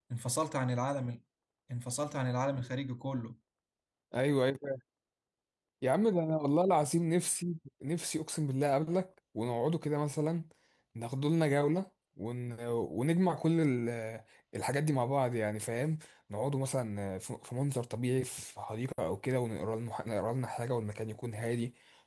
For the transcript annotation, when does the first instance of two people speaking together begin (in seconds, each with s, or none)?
none